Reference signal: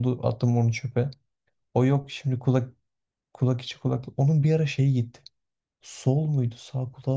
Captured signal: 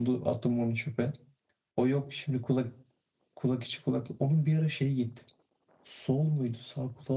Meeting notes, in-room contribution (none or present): none